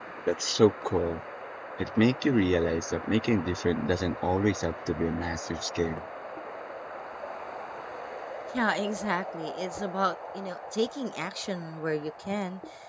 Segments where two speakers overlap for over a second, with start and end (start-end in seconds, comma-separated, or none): none